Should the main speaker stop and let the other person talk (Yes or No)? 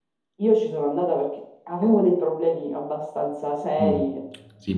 Yes